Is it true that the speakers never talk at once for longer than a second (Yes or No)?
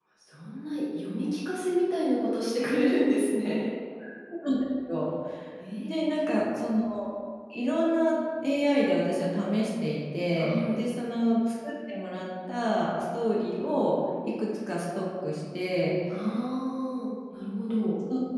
Yes